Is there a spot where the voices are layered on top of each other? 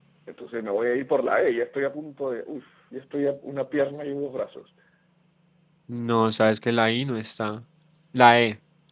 No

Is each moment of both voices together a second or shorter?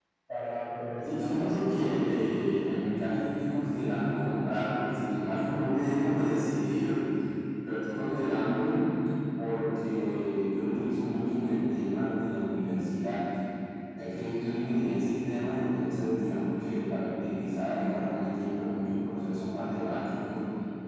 No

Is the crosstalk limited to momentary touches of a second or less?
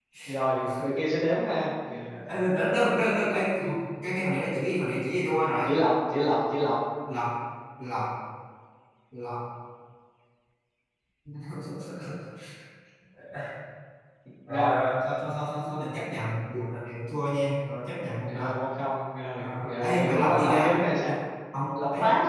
No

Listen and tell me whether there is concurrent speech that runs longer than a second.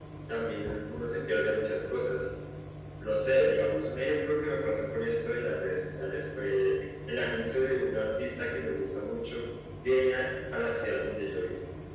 No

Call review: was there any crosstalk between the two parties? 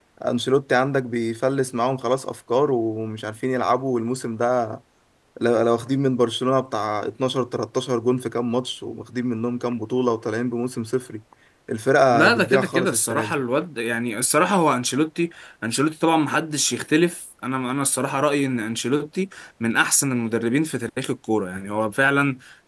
Yes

